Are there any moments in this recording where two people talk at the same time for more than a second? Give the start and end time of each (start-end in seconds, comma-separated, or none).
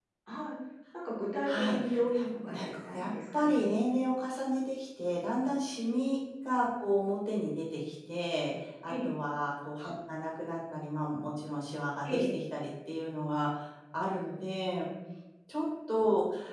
2.1-3.7